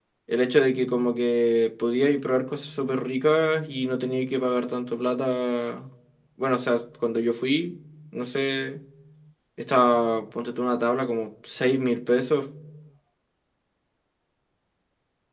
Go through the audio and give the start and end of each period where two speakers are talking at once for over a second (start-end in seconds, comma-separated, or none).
none